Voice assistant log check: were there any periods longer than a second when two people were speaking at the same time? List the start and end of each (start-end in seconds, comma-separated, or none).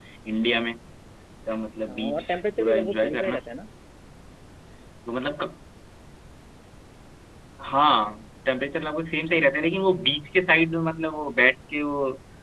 1.9-3.4